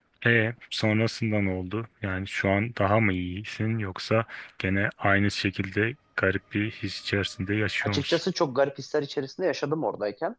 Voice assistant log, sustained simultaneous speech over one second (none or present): none